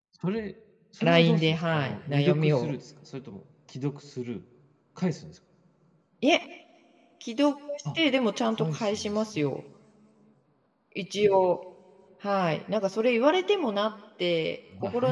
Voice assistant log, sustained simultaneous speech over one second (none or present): present